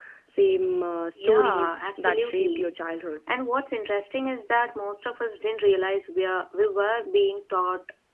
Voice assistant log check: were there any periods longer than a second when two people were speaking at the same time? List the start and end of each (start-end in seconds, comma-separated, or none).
1.1-2.7